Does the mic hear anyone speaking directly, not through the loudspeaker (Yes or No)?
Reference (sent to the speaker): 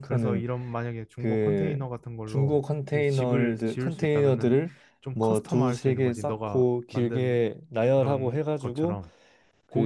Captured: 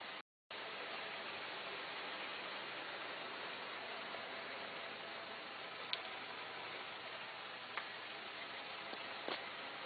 No